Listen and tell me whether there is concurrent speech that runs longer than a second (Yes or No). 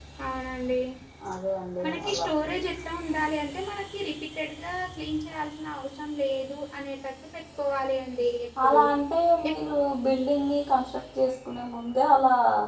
No